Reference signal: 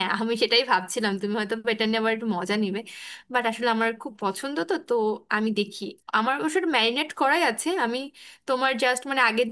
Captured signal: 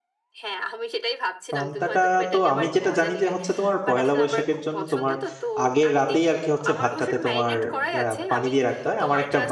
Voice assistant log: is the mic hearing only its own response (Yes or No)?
No